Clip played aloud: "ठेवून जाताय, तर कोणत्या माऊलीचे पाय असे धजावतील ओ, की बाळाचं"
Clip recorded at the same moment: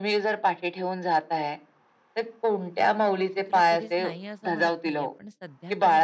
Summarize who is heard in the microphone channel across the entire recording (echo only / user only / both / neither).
both